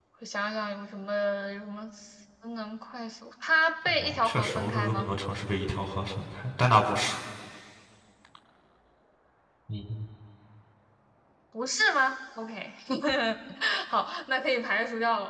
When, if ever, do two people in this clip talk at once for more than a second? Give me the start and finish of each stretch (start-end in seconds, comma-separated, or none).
3.9-5.1